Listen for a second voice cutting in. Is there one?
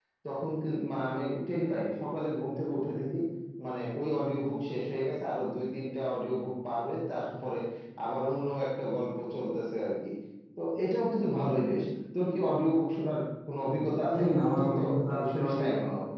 Yes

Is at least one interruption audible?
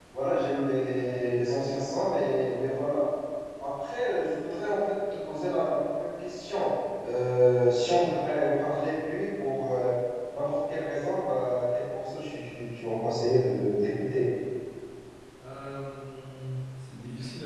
No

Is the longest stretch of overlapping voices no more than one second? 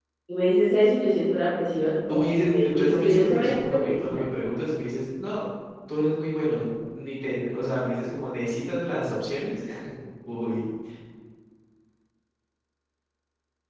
No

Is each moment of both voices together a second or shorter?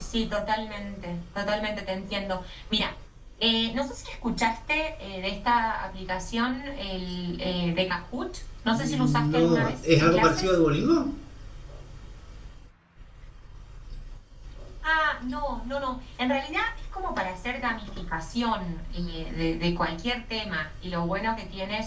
No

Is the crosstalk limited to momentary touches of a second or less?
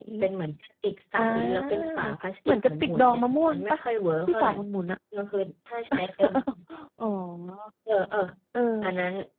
No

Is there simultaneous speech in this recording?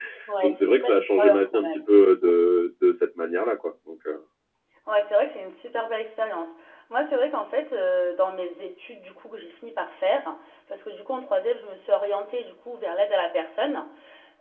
Yes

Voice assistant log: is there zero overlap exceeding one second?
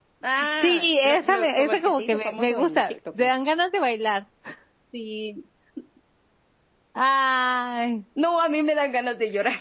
No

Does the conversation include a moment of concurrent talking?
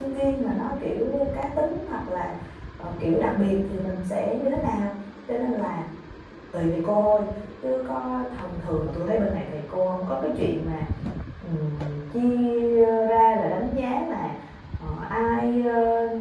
No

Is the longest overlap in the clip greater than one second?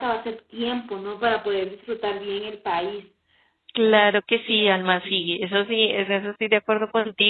No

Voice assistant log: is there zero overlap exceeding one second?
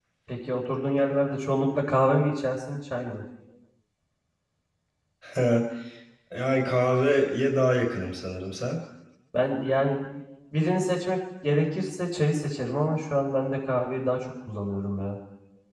Yes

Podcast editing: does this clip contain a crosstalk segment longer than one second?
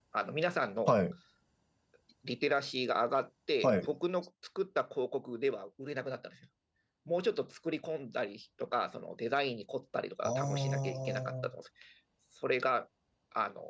Yes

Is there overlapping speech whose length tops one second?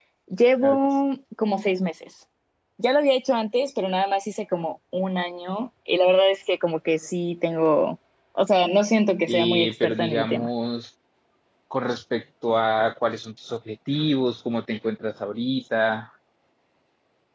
Yes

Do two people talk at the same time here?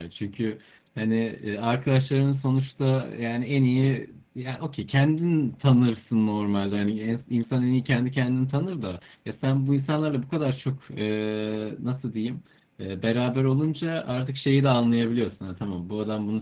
No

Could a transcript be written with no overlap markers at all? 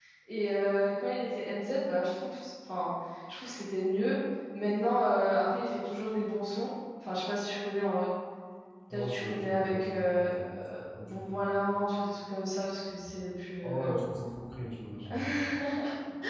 No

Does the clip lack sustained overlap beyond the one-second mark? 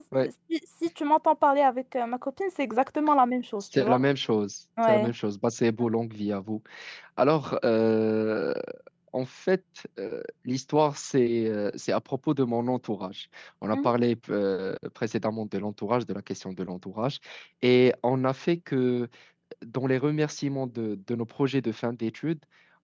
Yes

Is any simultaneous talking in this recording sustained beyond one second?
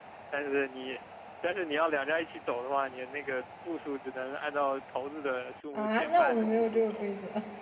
Yes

